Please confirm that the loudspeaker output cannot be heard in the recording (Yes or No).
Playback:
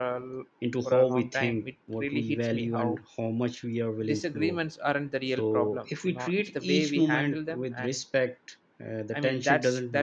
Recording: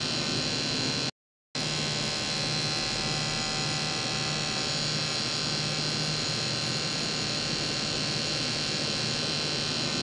Yes